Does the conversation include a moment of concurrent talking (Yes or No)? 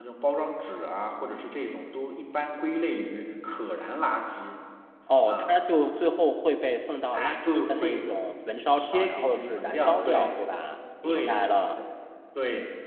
Yes